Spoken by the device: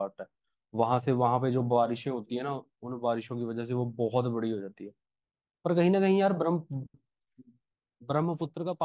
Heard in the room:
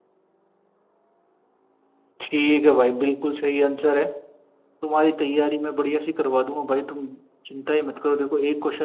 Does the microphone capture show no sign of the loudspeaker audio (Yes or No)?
Yes